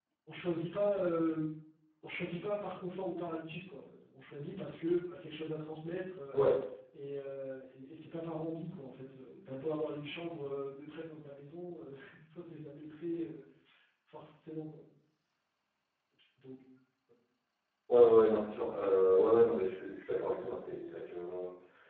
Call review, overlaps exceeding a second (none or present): none